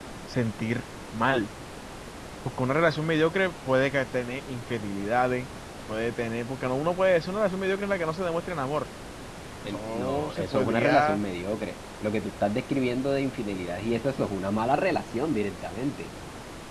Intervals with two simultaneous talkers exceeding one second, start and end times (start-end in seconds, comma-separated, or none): 9.7-11.2